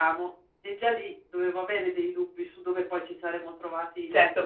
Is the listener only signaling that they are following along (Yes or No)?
No